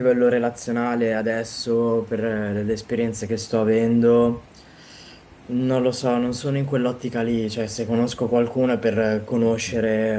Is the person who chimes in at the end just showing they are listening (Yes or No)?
Yes